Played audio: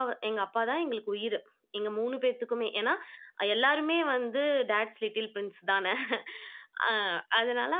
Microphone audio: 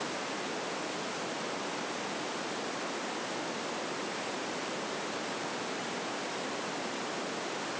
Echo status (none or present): none